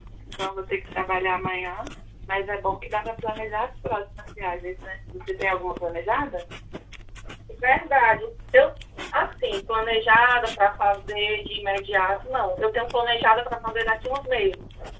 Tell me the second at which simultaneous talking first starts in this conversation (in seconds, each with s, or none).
none